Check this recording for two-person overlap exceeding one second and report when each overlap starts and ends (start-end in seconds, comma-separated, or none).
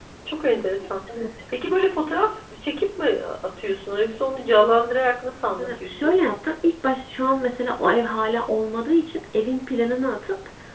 none